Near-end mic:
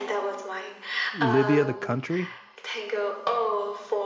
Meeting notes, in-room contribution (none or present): present